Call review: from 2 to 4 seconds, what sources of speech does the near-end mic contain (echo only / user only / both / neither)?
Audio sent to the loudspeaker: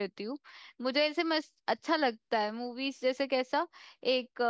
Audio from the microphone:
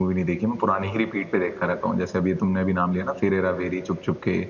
user only